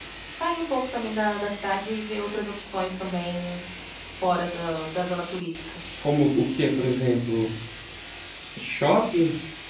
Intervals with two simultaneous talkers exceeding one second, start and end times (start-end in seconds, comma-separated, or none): none